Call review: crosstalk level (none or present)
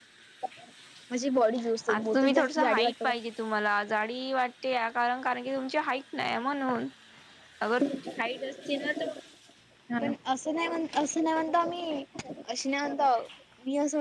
present